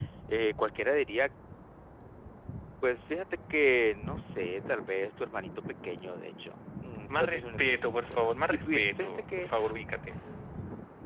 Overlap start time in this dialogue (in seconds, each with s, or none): 7.1 s